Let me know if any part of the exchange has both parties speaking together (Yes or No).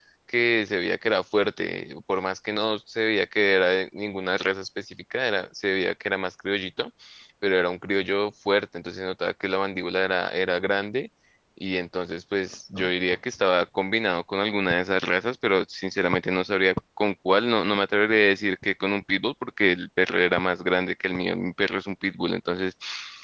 No